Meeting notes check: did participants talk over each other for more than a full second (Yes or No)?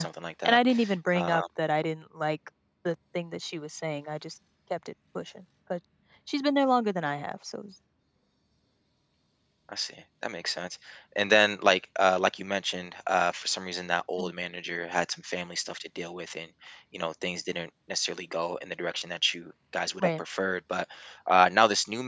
No